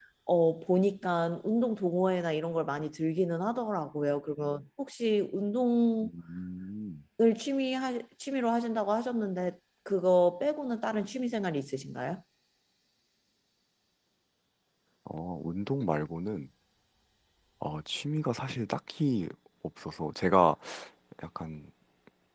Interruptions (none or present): none